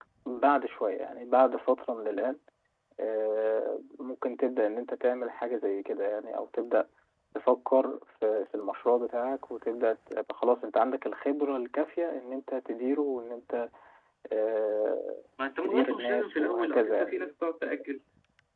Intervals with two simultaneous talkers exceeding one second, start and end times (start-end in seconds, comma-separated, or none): 15.6-17.3